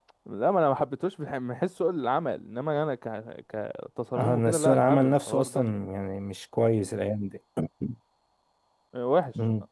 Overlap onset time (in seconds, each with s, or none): 4.2 s